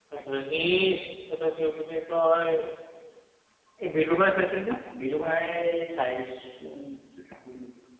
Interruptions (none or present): none